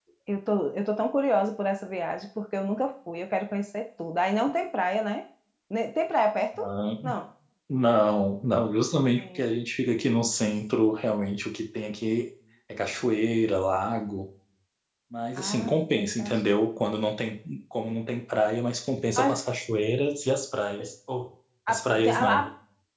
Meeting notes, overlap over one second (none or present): present